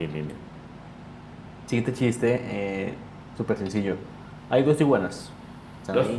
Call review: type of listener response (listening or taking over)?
listening